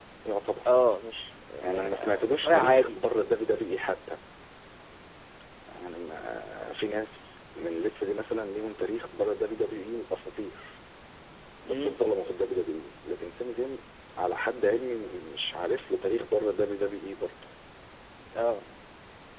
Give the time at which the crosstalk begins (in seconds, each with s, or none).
1.6 s